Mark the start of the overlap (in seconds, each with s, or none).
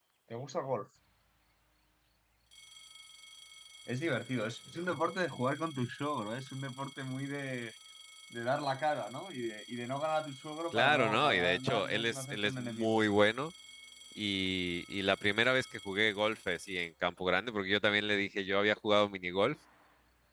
10.7 s